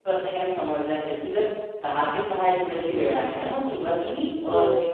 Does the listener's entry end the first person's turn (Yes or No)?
No